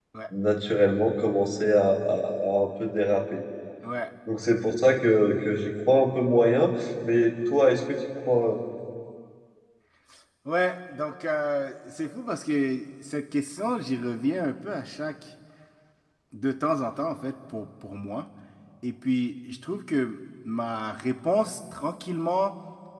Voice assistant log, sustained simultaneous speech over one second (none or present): none